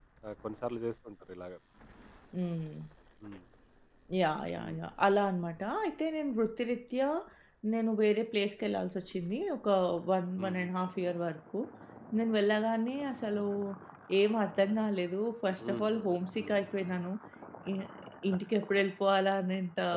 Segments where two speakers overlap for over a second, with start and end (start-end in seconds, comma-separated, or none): none